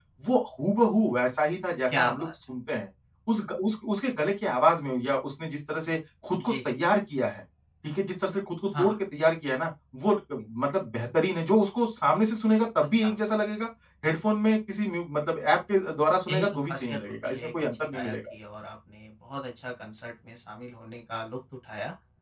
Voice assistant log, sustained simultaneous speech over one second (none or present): present